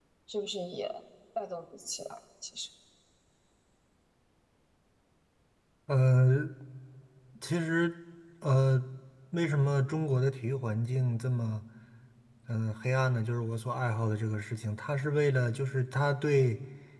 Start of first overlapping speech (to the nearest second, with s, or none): none